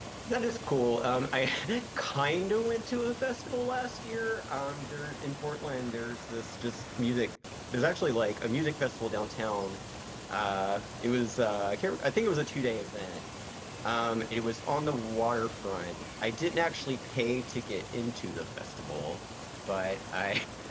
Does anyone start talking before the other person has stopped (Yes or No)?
No